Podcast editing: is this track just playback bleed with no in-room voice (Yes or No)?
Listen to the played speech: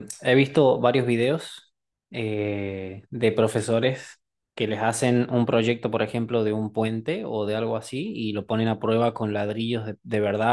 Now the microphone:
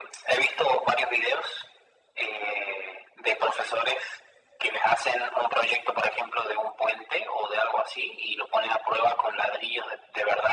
Yes